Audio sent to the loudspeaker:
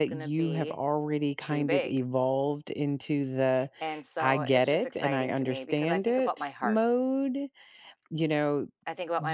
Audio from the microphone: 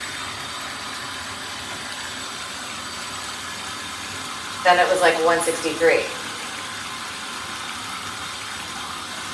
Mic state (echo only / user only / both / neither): user only